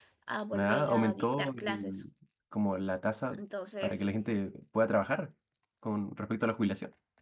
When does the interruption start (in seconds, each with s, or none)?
0.6 s